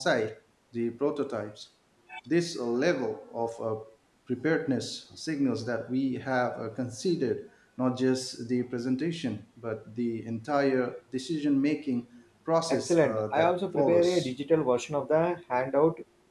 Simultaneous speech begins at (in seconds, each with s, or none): 12.7 s